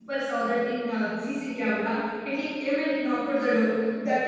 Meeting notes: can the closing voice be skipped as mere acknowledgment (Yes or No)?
Yes